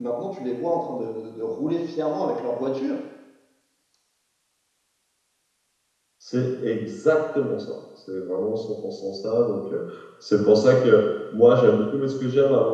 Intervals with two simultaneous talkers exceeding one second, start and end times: none

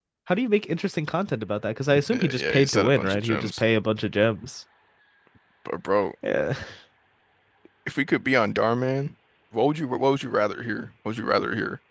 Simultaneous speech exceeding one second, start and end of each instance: 2.1-3.6

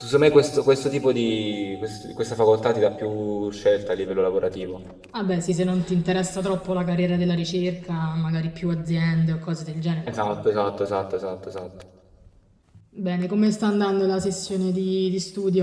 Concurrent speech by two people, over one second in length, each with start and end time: none

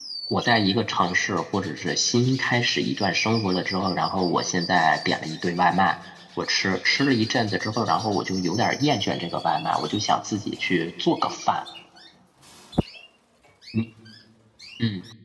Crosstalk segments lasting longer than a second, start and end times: none

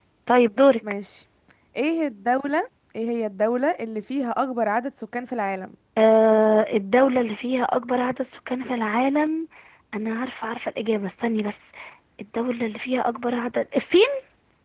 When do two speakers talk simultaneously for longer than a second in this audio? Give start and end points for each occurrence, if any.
none

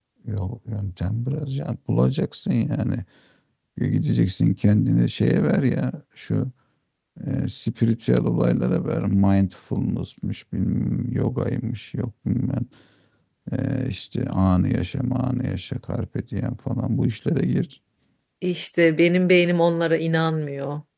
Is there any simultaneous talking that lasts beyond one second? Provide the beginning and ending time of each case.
none

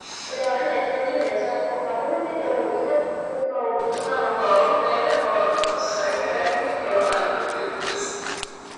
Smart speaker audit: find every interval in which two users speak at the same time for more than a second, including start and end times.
5.3-7.2

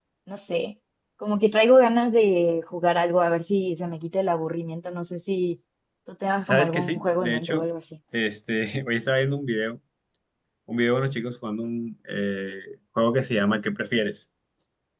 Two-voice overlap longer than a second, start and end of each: 6.4-7.6

